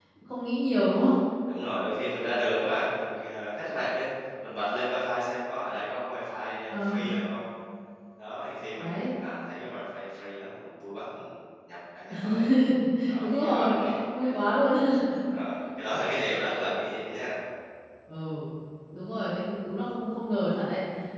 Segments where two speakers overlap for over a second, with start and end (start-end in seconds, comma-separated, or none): 13.2-14.4